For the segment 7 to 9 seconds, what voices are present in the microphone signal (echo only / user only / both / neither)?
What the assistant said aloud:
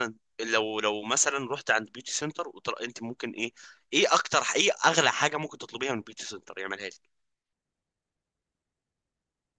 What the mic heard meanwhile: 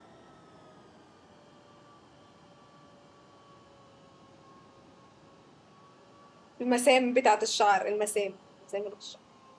user only